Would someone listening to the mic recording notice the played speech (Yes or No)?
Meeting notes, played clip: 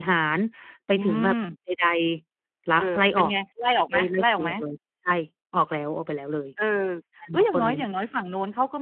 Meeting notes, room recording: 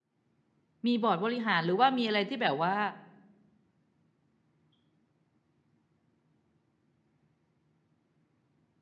No